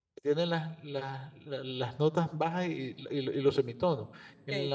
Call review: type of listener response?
listening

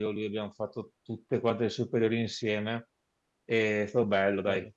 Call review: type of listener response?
listening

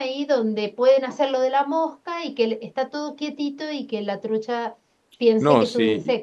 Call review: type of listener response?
taking over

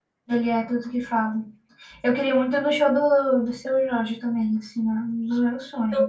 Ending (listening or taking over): taking over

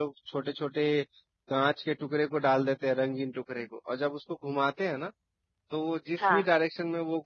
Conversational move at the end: listening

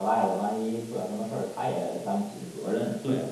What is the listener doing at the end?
taking over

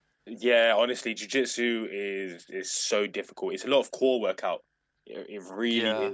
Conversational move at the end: listening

